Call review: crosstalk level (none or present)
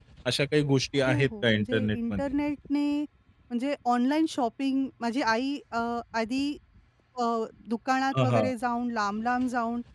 present